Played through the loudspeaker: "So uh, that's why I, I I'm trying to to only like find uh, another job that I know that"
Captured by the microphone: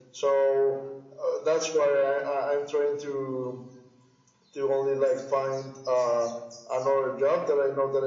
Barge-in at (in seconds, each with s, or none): none